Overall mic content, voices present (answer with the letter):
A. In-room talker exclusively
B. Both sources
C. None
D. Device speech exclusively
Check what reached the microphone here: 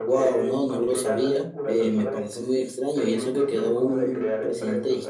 B